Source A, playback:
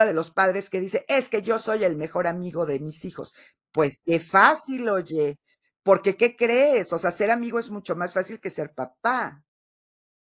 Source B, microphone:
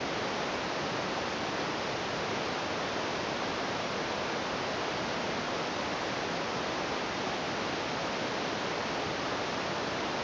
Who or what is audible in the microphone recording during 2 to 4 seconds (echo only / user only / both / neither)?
neither